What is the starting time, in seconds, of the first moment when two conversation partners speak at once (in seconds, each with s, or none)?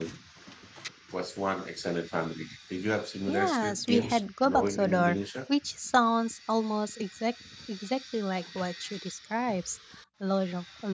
3.3 s